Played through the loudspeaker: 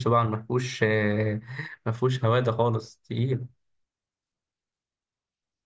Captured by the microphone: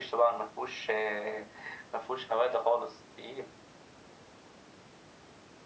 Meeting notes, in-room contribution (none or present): none